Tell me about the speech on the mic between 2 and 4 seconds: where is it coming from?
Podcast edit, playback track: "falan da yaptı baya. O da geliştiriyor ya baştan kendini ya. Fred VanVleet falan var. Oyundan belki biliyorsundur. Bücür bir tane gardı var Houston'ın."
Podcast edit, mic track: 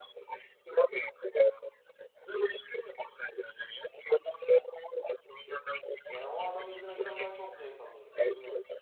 echo only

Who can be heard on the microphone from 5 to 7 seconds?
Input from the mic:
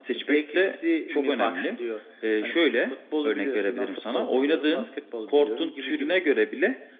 echo only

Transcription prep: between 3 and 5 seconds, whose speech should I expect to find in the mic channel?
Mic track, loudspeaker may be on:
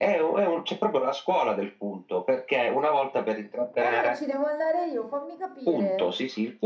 both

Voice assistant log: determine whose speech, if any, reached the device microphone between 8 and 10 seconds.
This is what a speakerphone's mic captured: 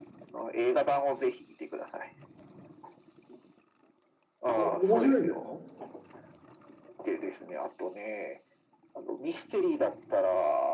echo only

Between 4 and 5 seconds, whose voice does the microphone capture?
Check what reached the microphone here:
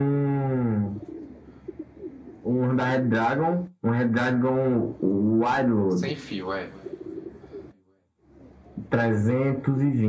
echo only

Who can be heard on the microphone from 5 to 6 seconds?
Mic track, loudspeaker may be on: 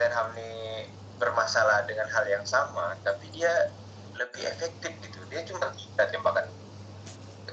echo only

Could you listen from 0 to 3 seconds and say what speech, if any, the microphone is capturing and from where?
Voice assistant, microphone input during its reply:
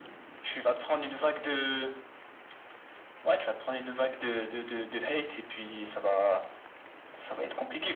echo only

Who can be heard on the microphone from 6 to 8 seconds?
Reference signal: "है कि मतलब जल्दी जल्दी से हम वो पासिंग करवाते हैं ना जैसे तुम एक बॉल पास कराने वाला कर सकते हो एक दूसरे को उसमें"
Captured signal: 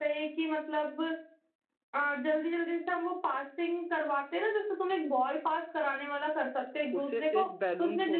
both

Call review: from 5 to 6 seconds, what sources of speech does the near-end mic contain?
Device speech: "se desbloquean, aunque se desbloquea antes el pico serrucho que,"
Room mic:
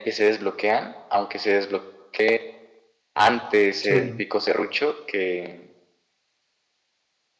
echo only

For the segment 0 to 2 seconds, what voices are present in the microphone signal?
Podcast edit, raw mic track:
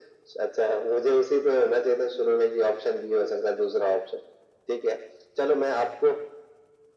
echo only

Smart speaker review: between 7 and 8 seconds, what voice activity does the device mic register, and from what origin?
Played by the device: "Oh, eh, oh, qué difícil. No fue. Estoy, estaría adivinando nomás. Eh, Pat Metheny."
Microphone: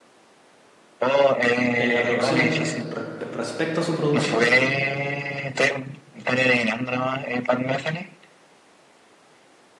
echo only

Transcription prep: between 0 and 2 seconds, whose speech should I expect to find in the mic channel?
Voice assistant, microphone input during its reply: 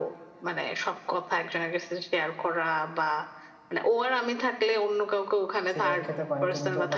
echo only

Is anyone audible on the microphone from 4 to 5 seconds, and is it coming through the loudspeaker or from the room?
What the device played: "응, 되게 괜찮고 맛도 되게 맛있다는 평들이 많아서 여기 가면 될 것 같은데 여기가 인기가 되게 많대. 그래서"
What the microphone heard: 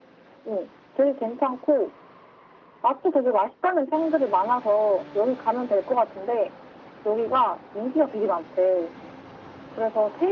echo only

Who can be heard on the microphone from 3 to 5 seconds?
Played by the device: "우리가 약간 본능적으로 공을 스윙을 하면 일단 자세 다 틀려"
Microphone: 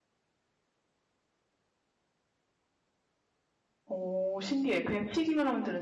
user only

